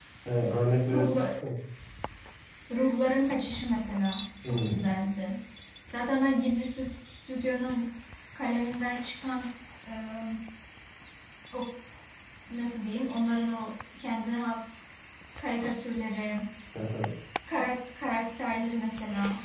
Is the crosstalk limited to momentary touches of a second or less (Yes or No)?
Yes